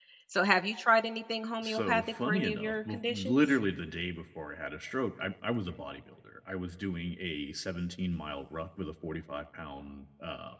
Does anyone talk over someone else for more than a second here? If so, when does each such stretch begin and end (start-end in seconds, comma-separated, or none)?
1.6-3.4